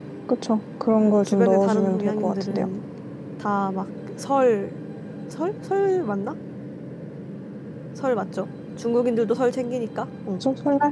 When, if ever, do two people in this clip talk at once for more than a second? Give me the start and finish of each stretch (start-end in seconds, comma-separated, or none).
1.0-2.7